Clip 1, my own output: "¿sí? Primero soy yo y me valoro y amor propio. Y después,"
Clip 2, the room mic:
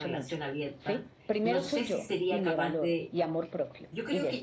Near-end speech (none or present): present